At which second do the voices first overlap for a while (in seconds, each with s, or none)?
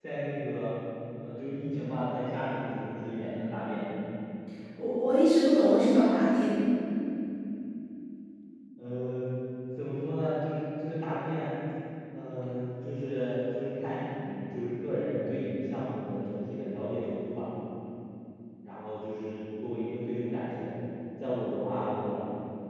none